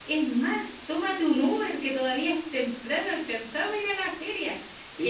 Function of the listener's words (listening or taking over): listening